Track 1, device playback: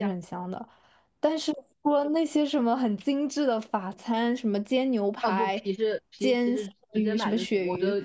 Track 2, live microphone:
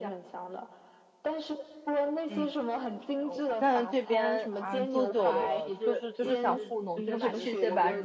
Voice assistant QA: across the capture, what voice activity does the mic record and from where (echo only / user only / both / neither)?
both